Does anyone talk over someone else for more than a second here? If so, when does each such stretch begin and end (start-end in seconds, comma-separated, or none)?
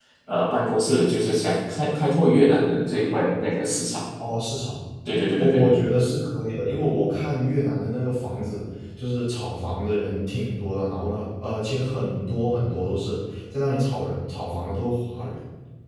none